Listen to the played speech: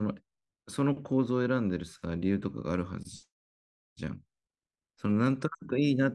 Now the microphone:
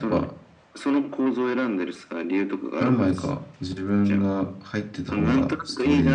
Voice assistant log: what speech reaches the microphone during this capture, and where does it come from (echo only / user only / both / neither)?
both